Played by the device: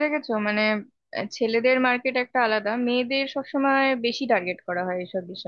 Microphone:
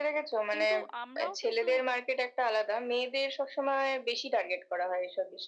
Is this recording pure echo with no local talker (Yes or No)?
No